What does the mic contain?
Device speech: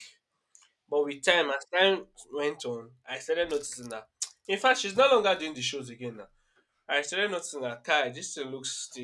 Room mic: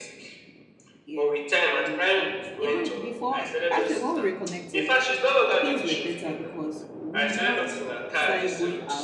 both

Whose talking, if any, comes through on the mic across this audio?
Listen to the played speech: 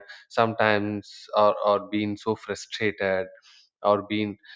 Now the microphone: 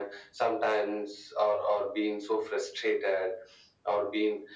echo only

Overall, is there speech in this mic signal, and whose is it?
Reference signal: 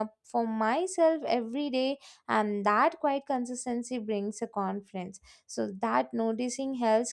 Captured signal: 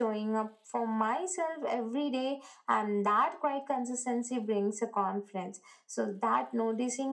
echo only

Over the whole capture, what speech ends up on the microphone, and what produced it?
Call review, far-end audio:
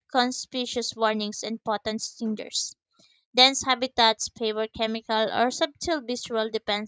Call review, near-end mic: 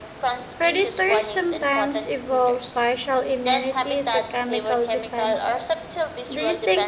both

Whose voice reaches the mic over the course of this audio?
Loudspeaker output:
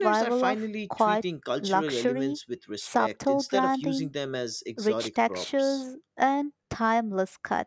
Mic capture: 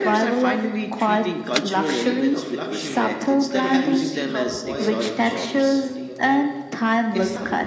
both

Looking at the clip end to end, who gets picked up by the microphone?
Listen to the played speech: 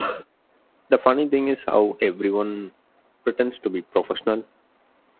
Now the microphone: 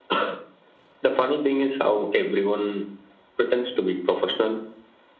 echo only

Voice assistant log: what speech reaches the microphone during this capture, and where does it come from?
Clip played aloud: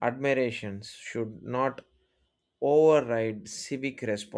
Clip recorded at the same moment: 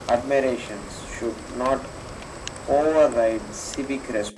echo only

